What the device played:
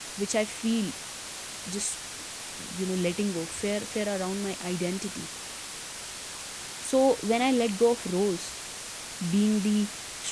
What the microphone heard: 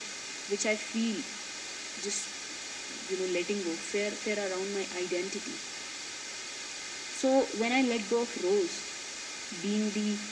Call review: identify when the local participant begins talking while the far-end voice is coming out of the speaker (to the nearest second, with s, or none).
none